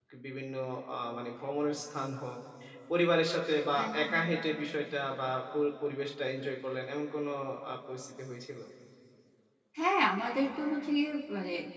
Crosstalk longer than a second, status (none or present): none